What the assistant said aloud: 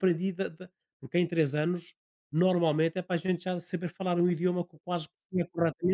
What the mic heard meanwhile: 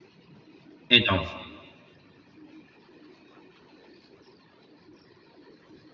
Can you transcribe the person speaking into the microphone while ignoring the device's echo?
Então,

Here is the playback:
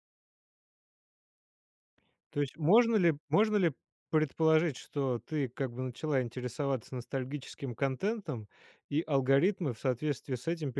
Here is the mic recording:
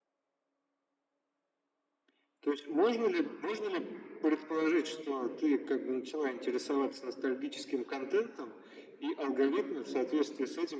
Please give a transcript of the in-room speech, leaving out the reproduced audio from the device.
none

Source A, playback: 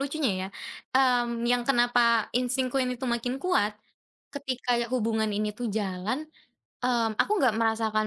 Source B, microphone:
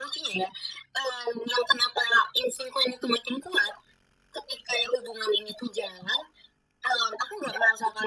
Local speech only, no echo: none

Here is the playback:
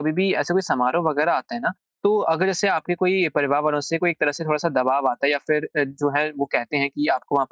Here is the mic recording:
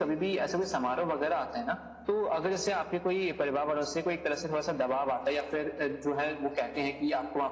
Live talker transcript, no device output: none

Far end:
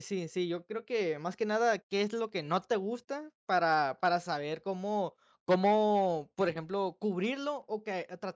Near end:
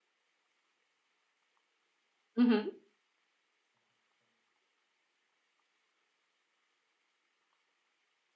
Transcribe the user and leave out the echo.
Ujú,

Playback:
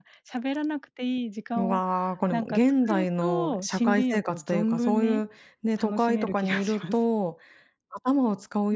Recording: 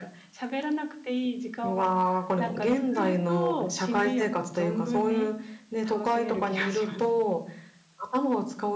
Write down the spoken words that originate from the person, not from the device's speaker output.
none

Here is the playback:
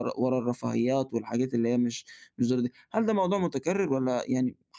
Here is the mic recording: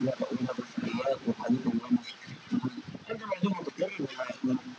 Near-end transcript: none

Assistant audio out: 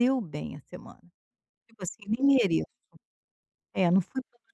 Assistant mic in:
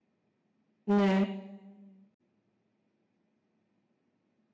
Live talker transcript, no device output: né?

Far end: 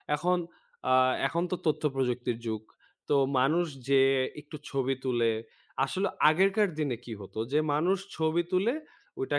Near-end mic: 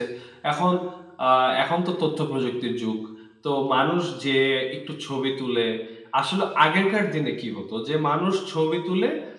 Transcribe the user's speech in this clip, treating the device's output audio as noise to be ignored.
none

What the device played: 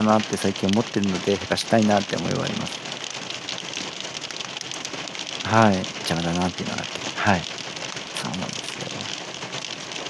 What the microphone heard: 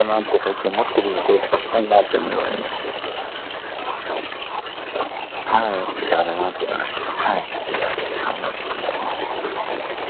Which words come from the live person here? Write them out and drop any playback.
none

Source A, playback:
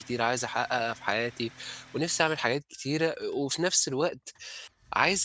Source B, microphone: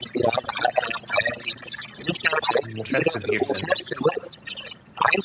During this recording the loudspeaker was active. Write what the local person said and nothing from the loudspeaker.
مشتت جدًا يعني.

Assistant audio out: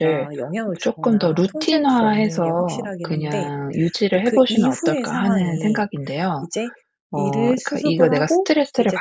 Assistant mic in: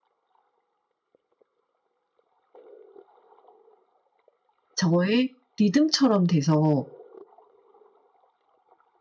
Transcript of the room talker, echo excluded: 저의 리듬처럼 돼서

